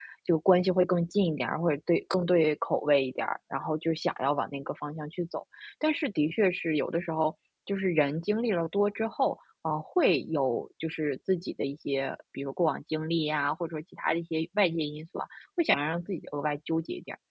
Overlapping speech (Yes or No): No